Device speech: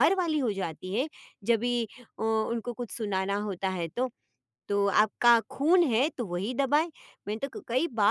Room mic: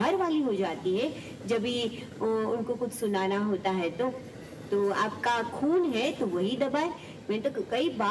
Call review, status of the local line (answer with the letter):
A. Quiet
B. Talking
A